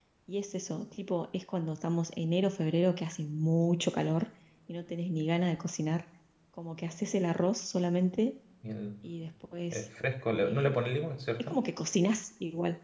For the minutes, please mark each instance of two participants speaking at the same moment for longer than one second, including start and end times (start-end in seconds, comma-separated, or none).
none